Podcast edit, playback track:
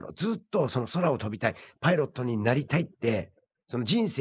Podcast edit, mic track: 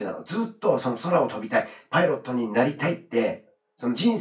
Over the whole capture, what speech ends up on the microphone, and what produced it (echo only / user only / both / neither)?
echo only